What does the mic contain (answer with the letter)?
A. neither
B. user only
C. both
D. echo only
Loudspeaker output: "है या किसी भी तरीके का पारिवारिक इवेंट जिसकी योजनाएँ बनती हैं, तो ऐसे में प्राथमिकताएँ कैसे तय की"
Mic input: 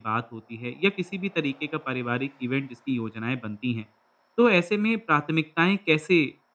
D